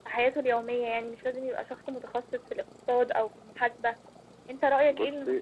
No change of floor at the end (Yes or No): Yes